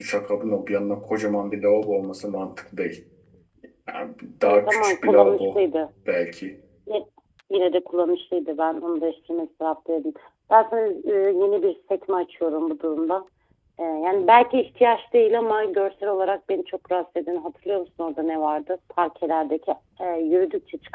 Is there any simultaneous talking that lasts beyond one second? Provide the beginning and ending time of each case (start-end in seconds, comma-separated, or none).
4.4-5.6